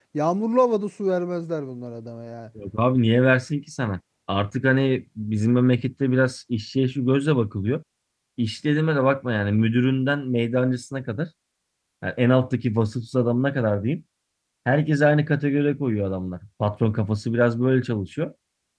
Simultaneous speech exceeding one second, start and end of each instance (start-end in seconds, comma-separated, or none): none